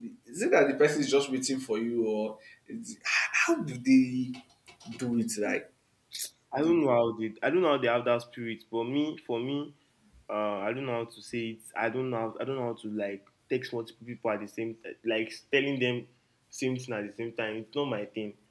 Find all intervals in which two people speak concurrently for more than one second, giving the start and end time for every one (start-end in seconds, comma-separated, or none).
none